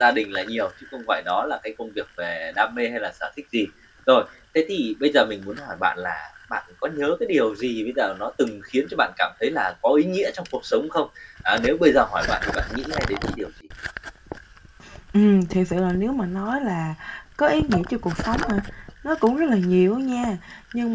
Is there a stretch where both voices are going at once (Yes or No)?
No